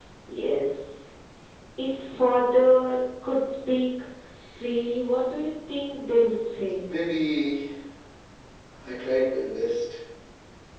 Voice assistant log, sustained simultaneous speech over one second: none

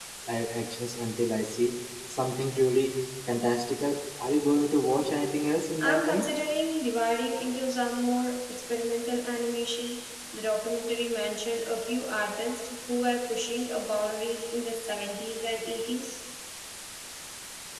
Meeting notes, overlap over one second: none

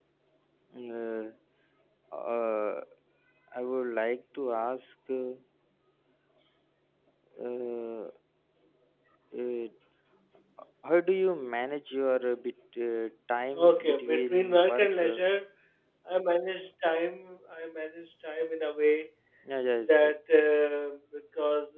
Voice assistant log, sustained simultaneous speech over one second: present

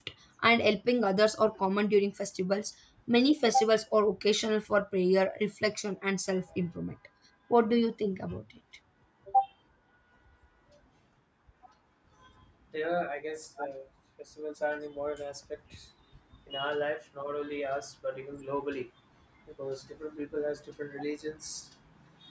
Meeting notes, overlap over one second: none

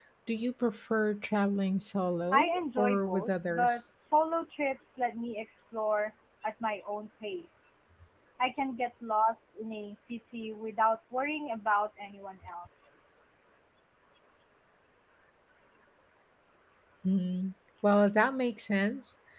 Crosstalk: present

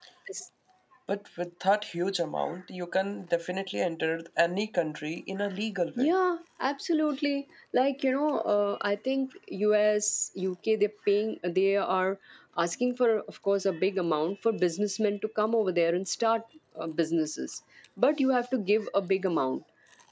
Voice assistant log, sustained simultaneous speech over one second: none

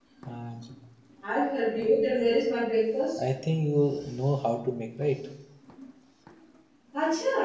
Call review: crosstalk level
none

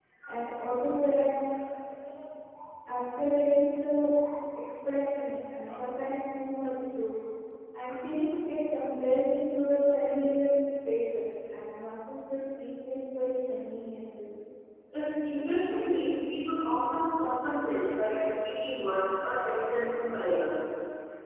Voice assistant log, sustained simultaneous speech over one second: none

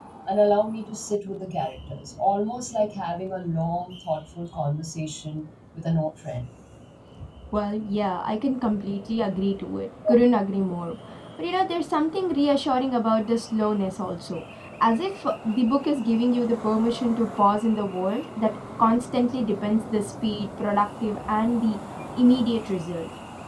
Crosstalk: none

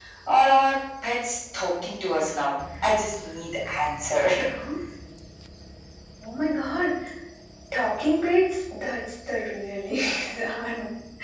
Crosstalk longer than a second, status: none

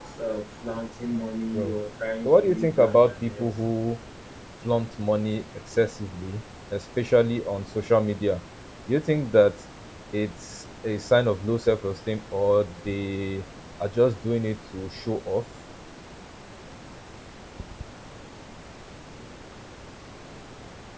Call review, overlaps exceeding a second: present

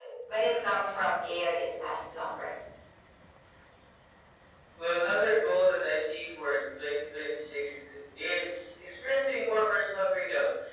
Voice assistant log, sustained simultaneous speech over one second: none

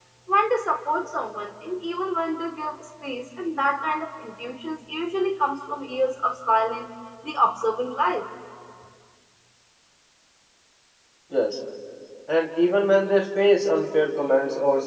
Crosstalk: none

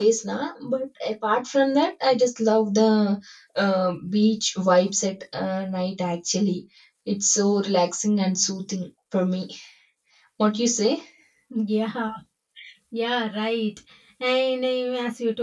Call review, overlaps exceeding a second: none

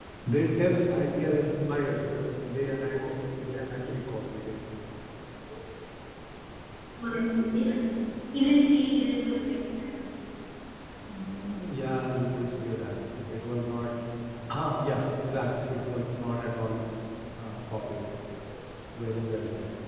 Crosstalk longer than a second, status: none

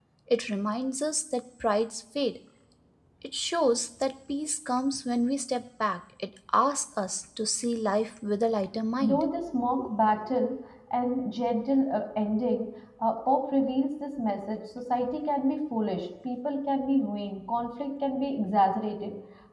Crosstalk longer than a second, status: none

